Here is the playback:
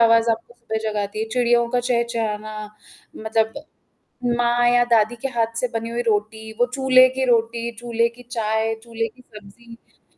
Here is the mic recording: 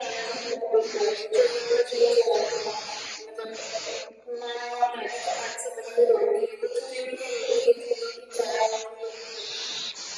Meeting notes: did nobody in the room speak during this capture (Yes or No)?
Yes